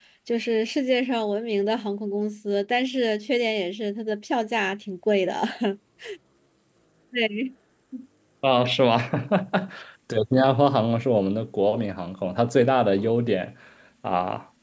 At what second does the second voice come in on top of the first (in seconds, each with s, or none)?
none